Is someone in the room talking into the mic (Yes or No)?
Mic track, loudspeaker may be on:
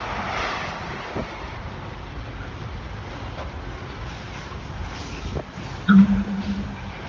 Yes